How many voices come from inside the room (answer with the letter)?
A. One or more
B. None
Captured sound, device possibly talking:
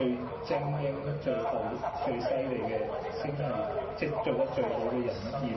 A